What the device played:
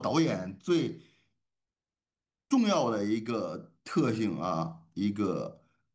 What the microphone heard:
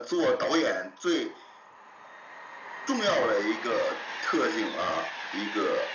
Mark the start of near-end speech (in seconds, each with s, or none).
none